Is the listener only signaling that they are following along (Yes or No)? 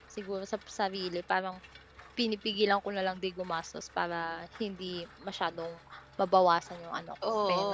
No